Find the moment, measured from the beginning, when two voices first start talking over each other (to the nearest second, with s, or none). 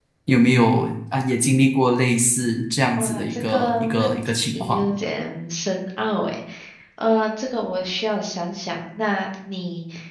3 s